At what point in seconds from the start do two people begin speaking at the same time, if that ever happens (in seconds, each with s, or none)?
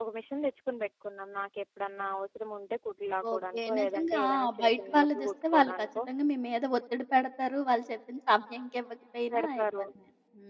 3.3 s